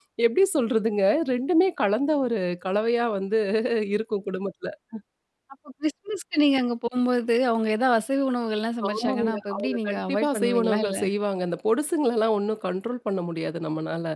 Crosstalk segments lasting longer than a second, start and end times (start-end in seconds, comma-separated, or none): 8.9-11.0